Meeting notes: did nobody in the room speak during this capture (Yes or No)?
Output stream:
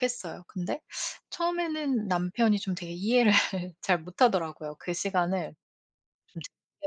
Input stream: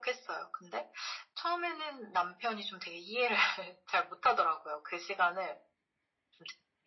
Yes